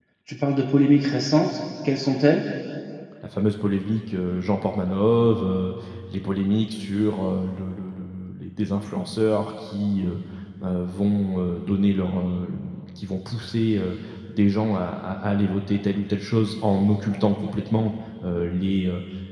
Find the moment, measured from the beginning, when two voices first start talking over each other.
none

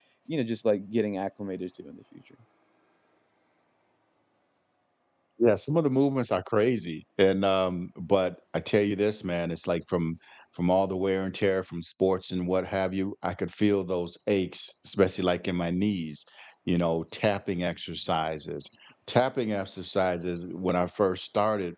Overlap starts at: none

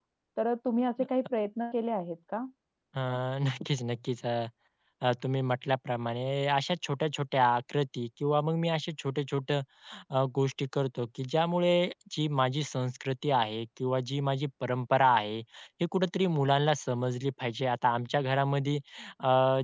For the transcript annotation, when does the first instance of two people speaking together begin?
none

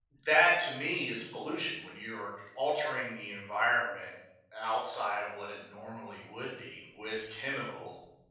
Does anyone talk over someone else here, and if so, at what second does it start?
none

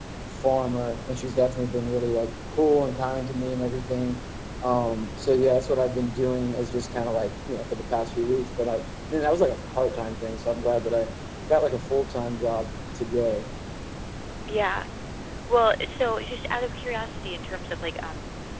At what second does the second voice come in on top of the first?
none

